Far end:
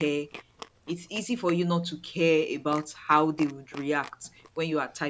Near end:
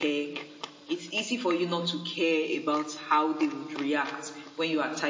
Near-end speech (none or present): none